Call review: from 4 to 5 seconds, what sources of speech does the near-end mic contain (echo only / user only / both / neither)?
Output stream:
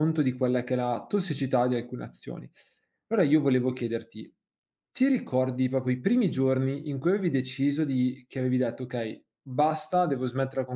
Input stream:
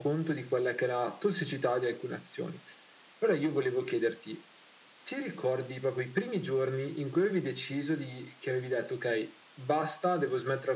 echo only